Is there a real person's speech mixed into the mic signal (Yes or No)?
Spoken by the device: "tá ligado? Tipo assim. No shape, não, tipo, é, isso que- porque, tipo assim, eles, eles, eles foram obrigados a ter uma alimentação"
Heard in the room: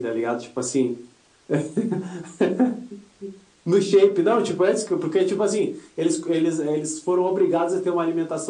No